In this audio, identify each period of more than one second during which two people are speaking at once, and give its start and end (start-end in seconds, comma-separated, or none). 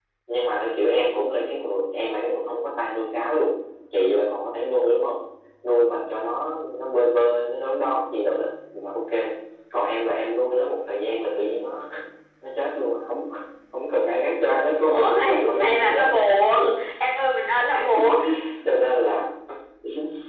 14.9-16.2